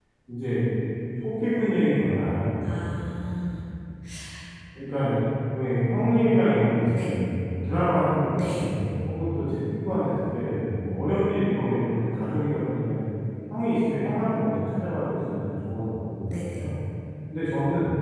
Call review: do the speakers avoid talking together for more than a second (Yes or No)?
Yes